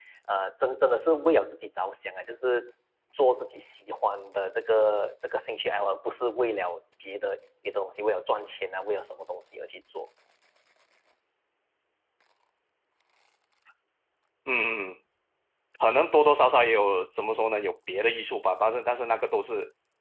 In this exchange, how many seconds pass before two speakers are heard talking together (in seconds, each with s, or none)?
none